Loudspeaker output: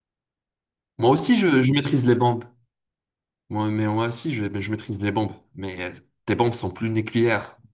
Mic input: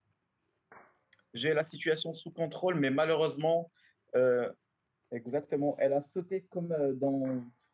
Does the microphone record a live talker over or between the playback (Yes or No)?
Yes